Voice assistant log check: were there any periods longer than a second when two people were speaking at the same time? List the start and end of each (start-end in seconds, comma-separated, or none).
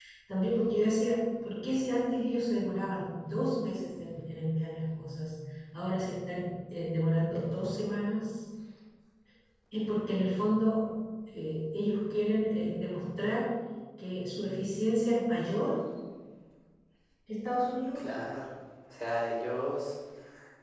none